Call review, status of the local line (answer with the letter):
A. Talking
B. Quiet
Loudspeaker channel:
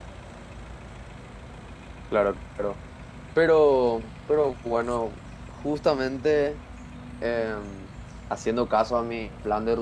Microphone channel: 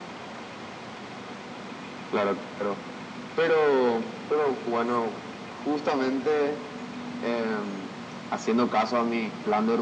B